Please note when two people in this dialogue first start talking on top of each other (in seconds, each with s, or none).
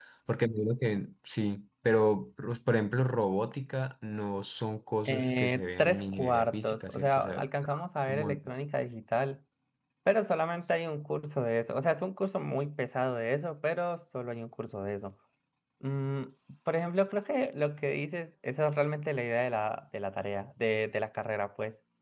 5.0 s